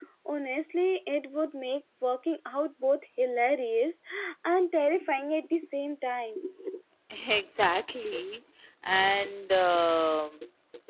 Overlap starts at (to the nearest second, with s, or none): none